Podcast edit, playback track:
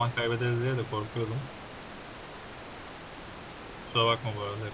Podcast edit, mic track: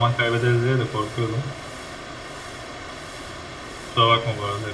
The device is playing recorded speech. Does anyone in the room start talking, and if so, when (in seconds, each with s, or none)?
none